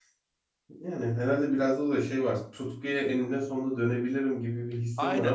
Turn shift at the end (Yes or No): Yes